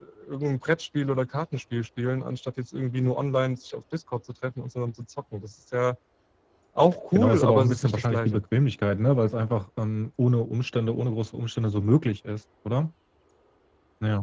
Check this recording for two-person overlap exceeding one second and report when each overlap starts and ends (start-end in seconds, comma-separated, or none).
7.2-8.4